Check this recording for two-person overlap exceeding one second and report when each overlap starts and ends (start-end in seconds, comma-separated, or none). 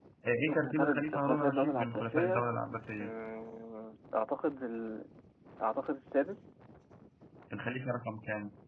0.8-2.6